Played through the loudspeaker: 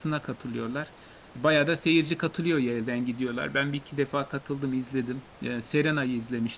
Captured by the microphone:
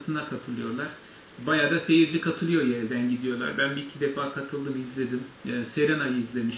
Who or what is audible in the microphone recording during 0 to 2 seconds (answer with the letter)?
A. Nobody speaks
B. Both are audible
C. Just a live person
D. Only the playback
D